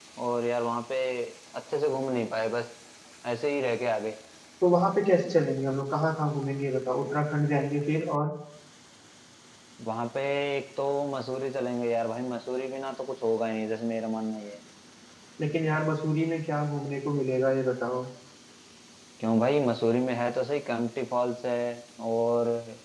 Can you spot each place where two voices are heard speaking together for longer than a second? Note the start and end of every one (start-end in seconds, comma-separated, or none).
none